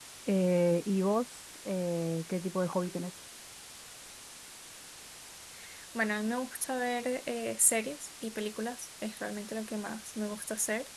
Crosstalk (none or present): none